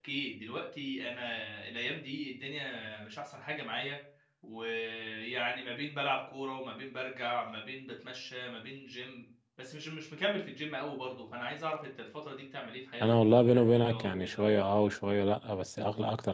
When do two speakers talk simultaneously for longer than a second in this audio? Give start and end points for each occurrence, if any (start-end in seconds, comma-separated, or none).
13.0-14.4